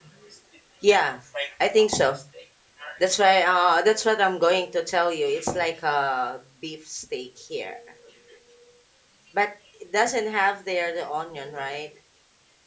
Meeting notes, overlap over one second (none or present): none